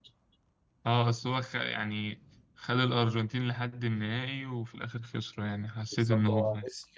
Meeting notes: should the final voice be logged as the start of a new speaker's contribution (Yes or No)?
Yes